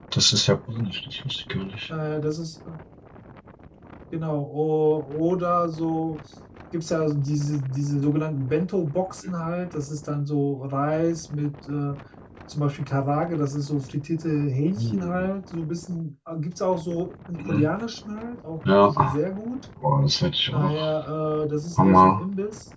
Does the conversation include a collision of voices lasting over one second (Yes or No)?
No